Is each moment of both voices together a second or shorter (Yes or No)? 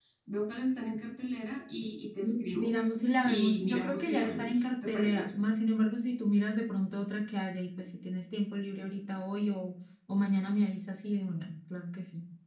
No